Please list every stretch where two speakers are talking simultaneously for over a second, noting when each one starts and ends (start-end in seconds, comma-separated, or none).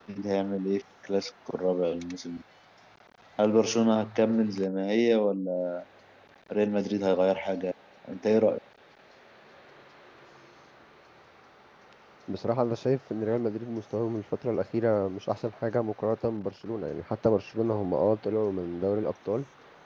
none